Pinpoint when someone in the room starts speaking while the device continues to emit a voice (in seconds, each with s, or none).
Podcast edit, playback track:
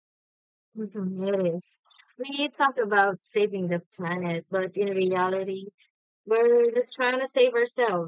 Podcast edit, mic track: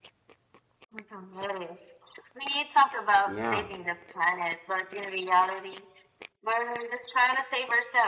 3.3 s